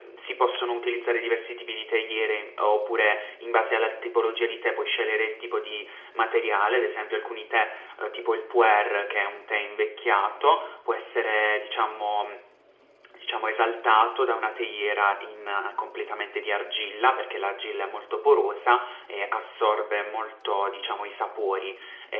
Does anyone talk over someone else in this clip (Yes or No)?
No